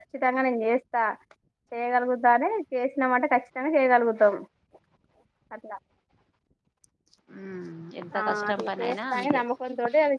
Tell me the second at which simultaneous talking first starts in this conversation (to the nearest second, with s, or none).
8 s